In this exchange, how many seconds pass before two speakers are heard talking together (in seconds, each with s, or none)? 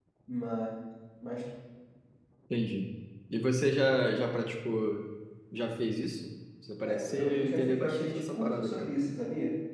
6.8 s